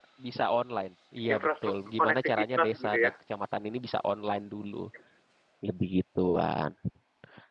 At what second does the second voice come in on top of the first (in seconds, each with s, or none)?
1.3 s